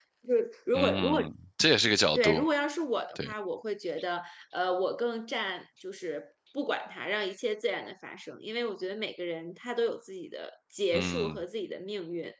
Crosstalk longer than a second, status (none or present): none